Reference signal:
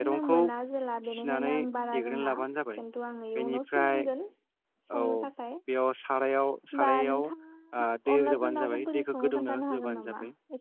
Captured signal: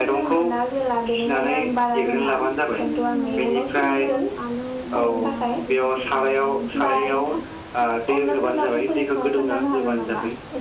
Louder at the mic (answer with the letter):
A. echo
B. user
A